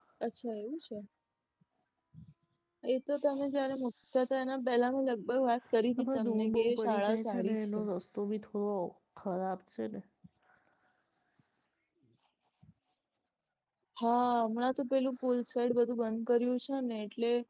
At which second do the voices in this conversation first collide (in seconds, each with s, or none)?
6.0 s